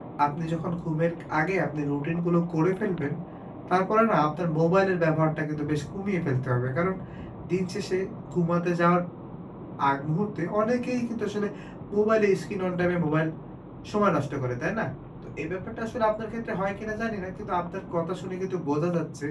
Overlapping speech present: No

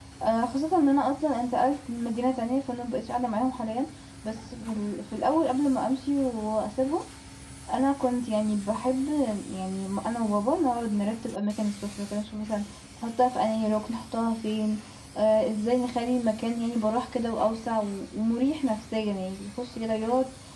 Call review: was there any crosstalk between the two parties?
No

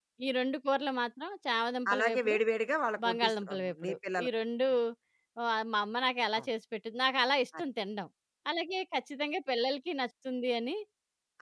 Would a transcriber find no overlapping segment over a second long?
No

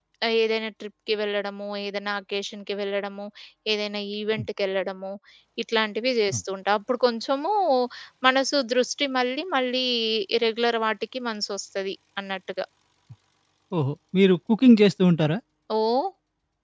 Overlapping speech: No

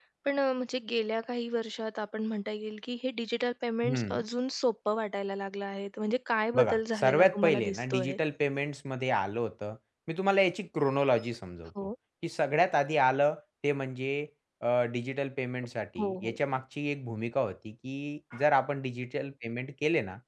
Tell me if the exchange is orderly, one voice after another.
No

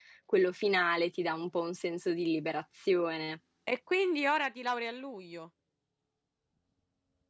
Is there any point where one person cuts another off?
No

